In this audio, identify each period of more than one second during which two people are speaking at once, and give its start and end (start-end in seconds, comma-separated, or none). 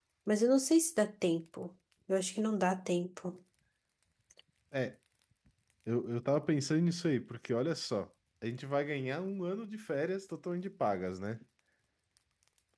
none